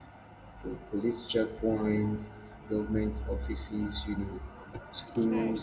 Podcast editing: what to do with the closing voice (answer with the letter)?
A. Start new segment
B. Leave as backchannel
B